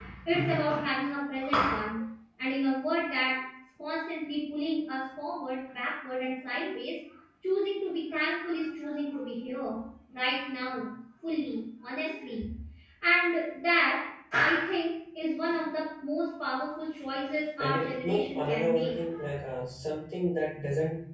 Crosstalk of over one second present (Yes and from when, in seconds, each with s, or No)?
Yes, from 17.6 s